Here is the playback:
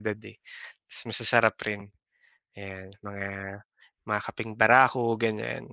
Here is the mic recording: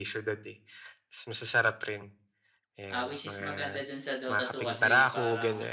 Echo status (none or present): present